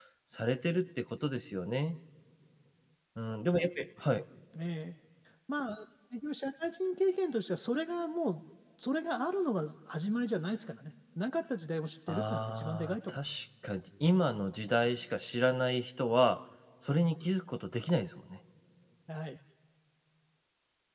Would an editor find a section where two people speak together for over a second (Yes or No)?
Yes